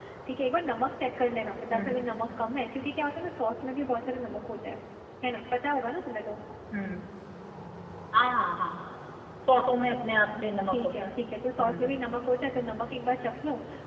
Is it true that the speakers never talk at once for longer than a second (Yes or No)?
Yes